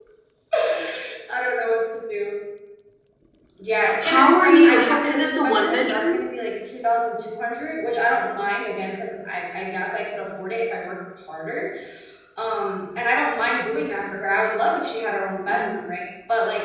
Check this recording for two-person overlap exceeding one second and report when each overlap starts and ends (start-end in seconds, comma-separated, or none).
4.0-6.3